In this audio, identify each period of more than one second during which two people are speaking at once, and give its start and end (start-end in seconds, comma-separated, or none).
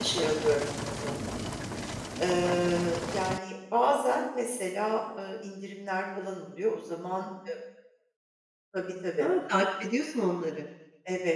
none